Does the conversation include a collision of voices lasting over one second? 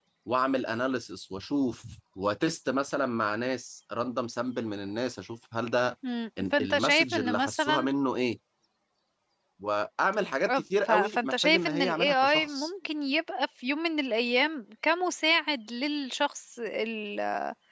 Yes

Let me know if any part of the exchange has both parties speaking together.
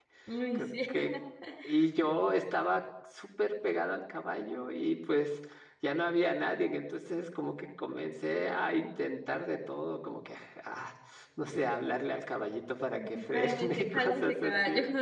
Yes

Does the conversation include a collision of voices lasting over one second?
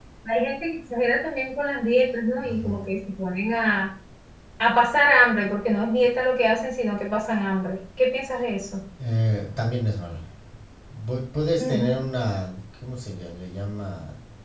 No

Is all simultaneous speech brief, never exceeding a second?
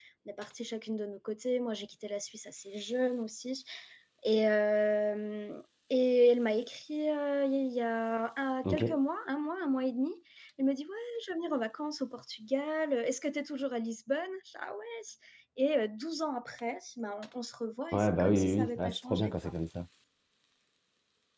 No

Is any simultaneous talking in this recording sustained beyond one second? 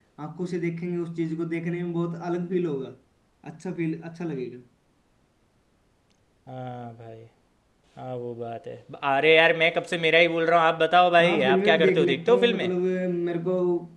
Yes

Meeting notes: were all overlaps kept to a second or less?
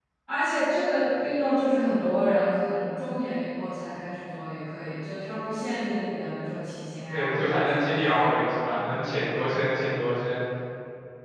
No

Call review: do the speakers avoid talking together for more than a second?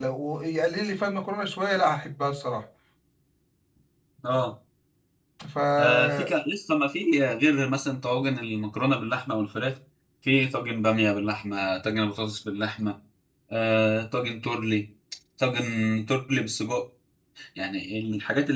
Yes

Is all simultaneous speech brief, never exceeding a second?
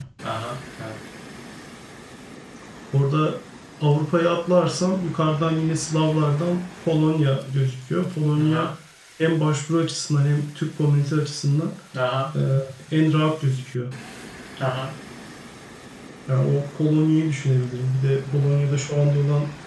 Yes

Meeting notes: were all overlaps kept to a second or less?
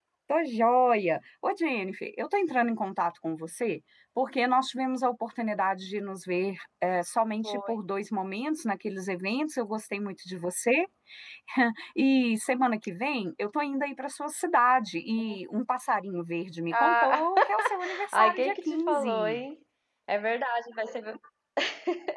No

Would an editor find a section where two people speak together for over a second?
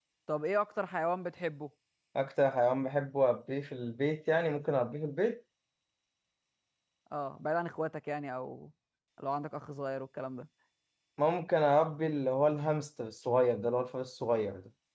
No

